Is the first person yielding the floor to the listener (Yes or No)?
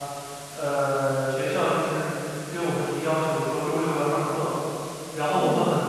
No